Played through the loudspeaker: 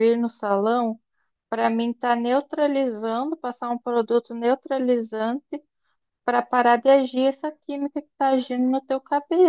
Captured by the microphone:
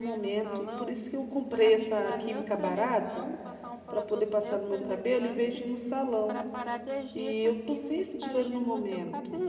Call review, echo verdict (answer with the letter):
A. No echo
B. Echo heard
B